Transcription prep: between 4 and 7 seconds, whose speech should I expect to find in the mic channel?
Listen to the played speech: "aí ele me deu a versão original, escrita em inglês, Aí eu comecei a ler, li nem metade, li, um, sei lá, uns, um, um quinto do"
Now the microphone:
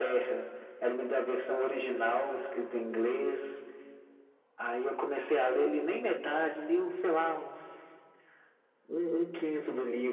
echo only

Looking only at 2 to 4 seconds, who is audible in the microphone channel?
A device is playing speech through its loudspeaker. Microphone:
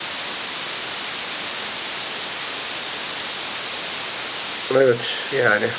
neither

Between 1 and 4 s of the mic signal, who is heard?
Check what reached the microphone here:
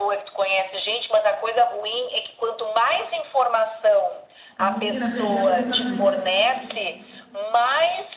echo only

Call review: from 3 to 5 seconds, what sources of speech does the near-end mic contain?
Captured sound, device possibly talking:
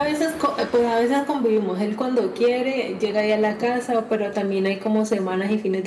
echo only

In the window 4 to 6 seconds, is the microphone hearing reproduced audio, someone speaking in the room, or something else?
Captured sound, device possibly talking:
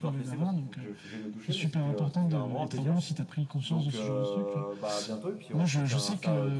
both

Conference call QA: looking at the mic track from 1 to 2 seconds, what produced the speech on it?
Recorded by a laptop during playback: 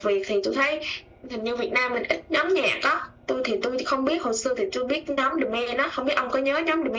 echo only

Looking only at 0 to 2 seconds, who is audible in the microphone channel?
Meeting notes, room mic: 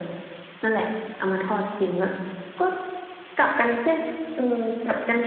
echo only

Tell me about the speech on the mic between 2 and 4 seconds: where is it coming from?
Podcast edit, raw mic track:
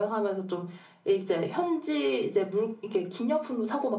echo only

